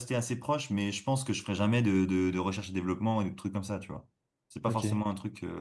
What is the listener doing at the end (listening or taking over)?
listening